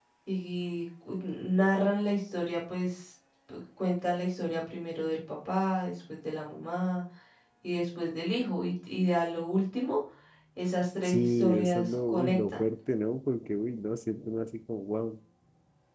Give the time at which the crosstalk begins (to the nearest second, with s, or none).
11 s